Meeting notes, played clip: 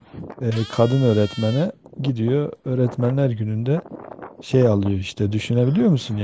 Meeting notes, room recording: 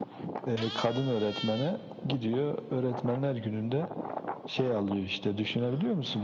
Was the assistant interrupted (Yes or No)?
No